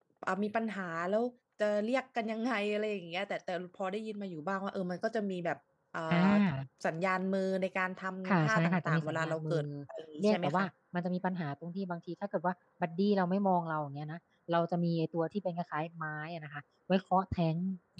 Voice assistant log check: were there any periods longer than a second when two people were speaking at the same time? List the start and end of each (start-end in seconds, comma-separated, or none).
8.3-9.6